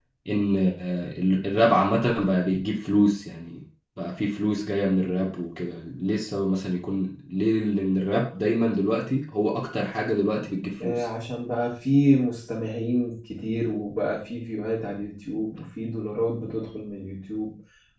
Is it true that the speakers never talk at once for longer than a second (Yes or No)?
Yes